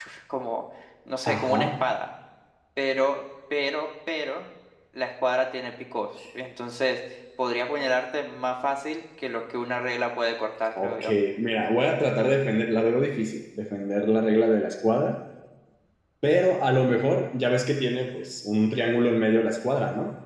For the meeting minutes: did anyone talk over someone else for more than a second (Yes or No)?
No